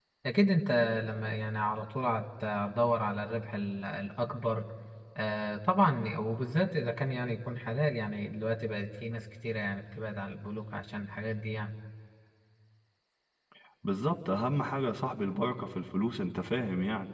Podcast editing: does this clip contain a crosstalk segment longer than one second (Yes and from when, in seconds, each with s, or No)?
No